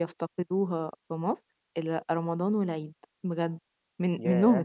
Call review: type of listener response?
listening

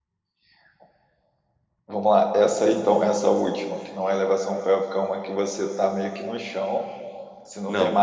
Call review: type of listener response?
taking over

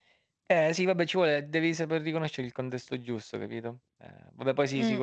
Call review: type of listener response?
taking over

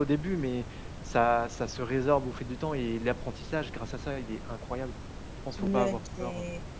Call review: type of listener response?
taking over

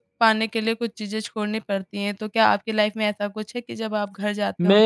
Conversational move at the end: taking over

